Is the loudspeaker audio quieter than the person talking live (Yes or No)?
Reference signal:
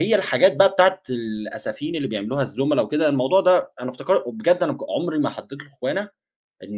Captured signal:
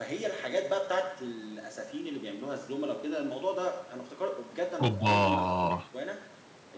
Yes